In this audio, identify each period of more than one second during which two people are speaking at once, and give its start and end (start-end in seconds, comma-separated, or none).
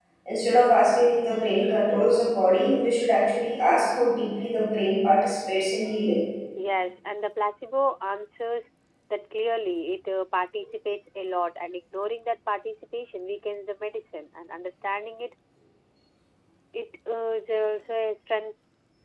none